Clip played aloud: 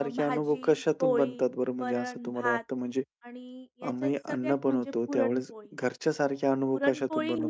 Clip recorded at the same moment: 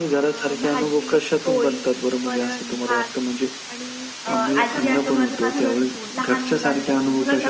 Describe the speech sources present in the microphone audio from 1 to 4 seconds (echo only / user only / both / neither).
echo only